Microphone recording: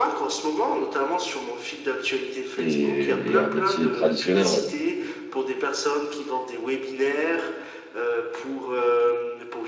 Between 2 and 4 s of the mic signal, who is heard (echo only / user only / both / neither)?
both